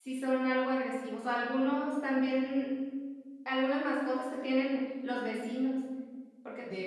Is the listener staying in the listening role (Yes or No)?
Yes